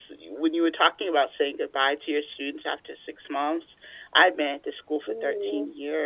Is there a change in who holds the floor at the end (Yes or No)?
No